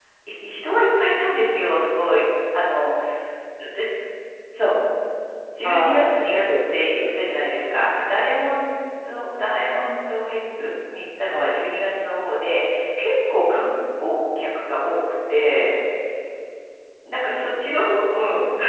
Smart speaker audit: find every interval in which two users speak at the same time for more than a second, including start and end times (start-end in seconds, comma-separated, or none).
5.6-7.2